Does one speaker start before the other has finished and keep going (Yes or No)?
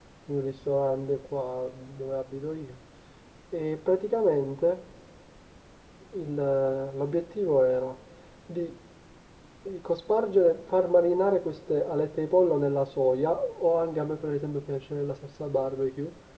No